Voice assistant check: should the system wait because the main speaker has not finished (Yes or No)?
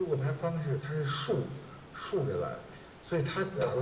Yes